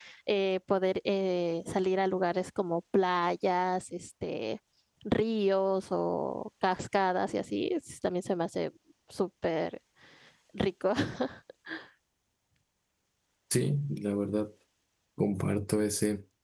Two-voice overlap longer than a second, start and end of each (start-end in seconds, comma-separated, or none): none